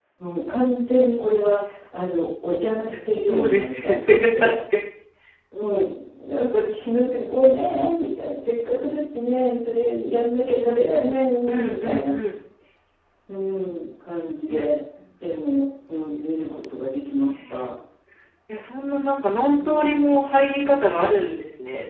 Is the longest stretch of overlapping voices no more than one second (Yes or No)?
No